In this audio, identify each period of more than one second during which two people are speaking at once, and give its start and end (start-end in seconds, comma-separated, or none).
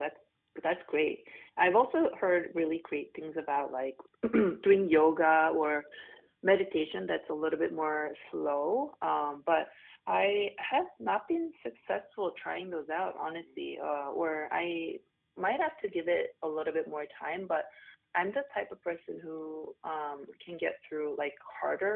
none